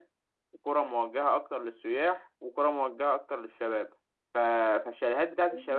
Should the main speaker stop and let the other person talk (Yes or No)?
No